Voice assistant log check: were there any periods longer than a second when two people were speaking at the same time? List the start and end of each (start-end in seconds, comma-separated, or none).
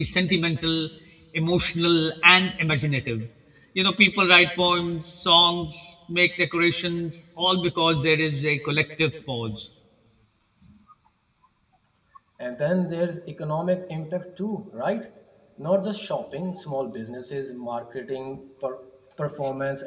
none